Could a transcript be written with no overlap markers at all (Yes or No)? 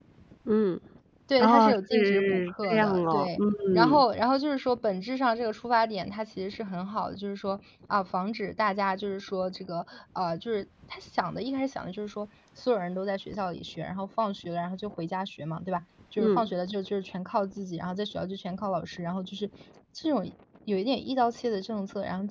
No